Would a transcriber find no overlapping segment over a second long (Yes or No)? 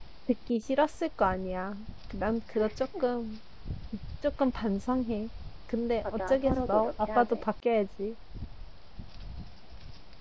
No